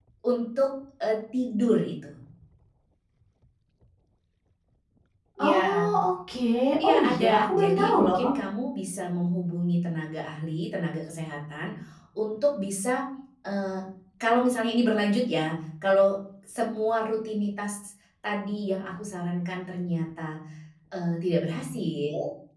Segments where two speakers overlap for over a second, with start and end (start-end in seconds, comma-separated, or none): 6.8-8.3